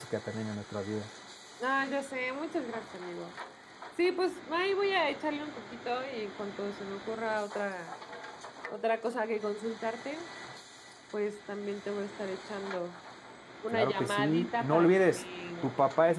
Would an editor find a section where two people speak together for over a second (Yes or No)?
Yes